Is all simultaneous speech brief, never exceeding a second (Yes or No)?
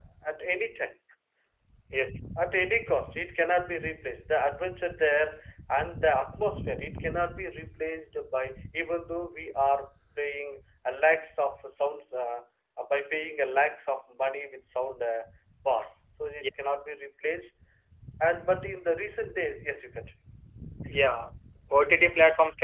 Yes